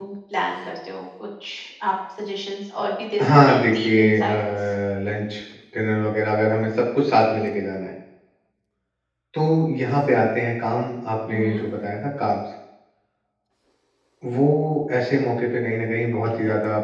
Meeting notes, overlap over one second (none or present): present